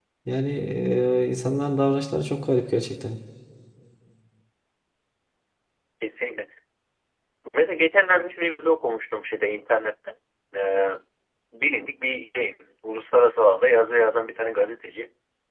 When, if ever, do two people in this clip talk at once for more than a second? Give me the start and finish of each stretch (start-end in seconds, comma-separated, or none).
none